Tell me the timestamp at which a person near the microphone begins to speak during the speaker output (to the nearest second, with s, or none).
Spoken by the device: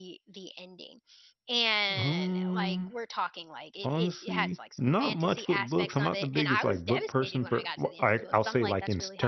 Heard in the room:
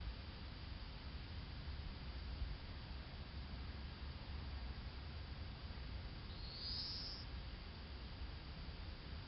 none